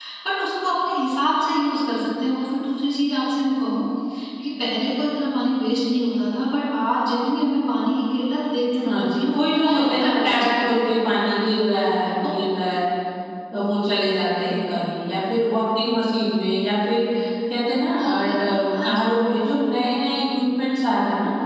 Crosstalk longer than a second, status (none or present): present